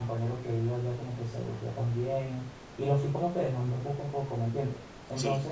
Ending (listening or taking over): listening